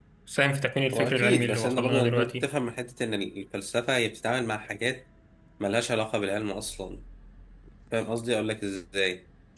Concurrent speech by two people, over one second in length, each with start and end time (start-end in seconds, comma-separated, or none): 0.9-2.5